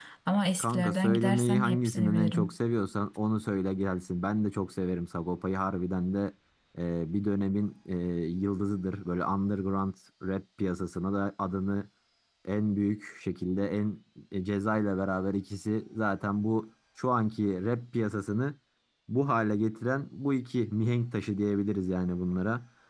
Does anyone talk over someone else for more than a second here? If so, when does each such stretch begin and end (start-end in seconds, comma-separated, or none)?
0.6-2.5